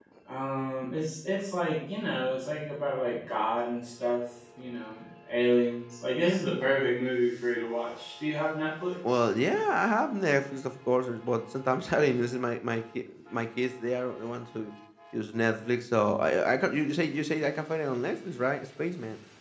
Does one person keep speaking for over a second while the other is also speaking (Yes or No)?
No